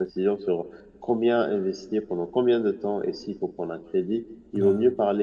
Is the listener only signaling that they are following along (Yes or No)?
Yes